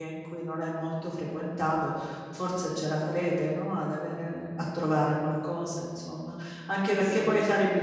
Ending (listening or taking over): listening